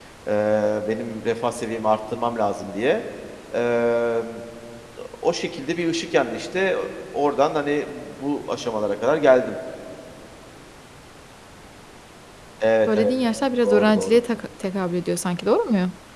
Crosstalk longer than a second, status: none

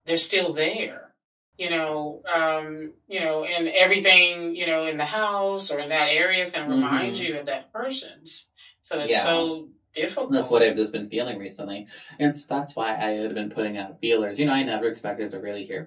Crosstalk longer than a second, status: none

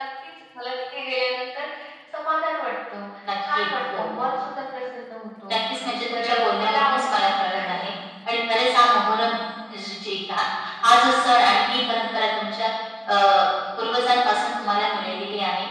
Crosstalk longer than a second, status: present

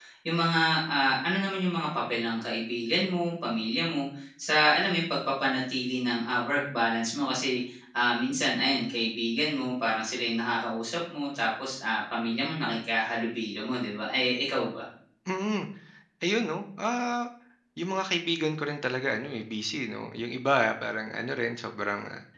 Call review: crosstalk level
none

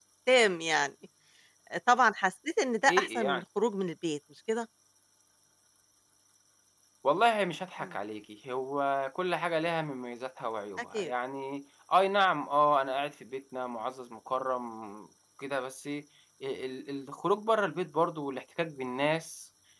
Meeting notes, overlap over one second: none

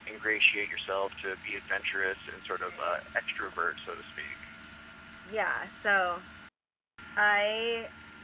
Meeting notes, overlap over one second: none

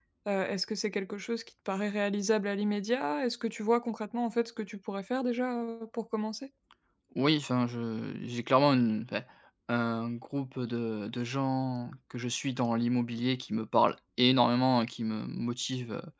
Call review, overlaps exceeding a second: none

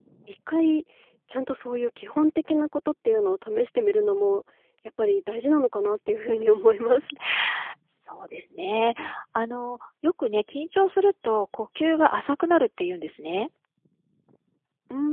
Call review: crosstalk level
none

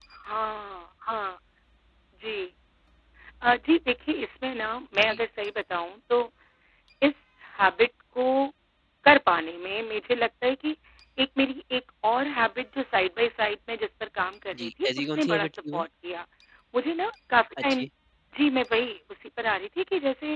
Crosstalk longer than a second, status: present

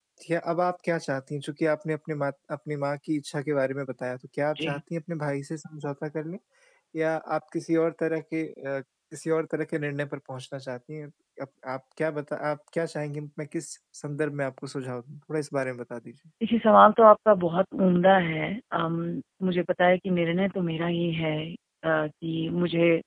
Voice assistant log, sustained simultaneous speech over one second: none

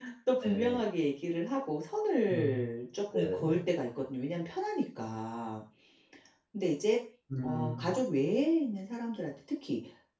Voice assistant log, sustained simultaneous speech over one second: none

